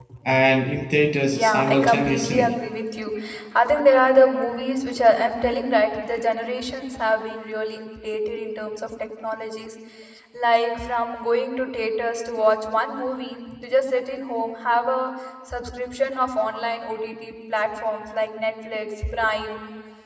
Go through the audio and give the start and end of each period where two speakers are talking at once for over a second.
1.3-2.6

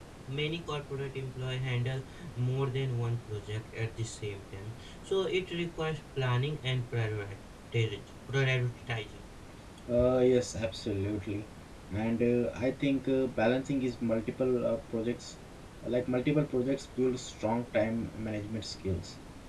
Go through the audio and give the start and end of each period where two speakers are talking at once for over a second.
none

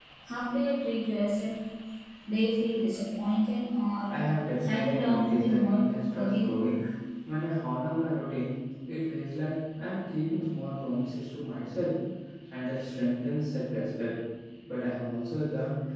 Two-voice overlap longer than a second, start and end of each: 4.7-6.6

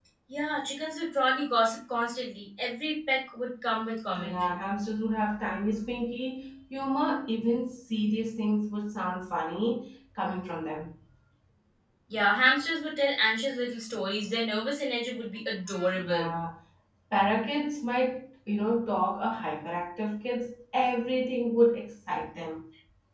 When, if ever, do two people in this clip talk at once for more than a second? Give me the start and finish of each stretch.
none

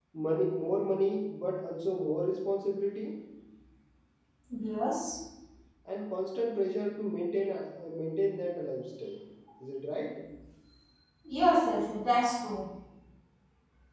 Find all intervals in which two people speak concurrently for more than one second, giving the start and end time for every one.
none

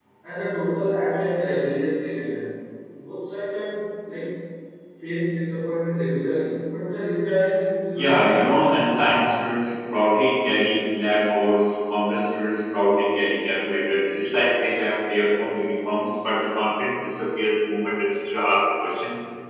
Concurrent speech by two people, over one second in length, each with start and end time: 8.0-9.2

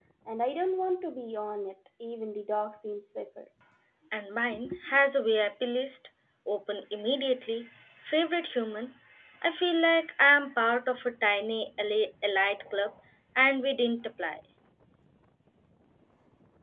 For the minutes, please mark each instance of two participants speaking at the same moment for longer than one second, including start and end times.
none

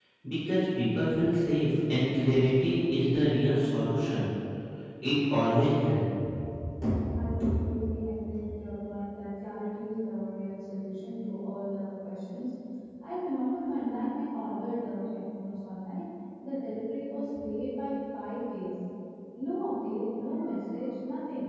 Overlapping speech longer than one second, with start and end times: none

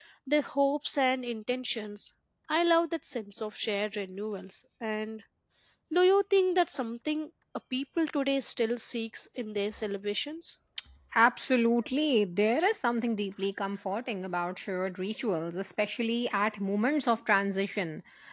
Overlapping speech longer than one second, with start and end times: none

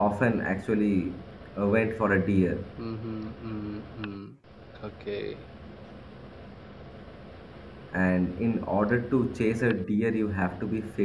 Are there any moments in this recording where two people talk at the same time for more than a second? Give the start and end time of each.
none

